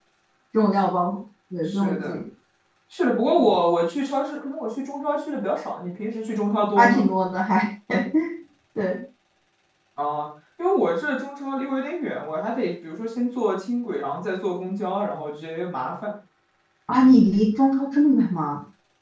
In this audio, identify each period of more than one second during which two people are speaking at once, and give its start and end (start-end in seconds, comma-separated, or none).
none